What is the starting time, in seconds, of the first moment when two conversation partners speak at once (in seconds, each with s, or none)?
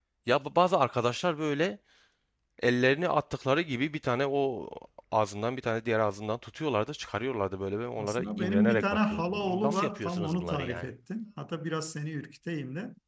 8.0 s